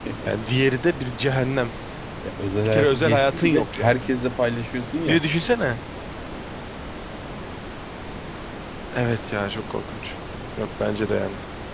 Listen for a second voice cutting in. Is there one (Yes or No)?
Yes